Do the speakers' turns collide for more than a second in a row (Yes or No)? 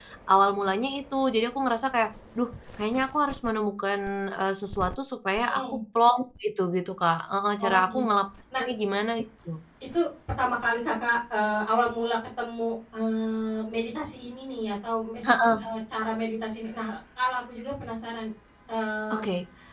No